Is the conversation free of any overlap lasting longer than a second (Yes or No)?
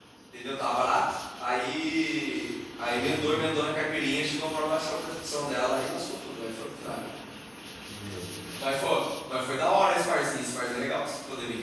Yes